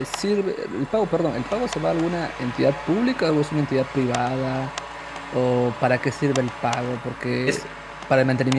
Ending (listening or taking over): listening